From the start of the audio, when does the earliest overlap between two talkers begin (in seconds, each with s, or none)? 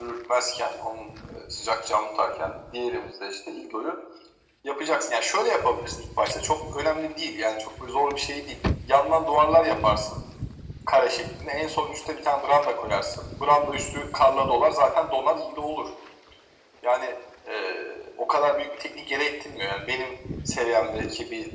none